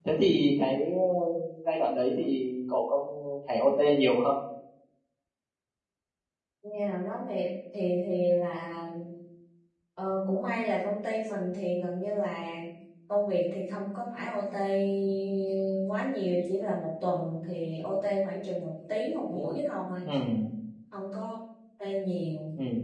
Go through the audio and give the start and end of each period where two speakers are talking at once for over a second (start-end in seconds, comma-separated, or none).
none